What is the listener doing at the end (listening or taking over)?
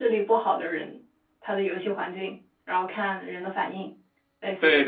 taking over